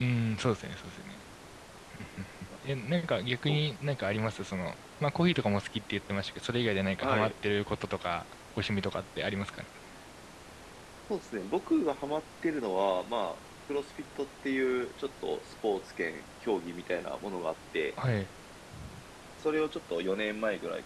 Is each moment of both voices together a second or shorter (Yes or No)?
Yes